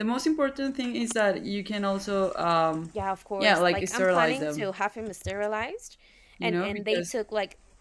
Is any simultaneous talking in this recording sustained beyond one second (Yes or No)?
Yes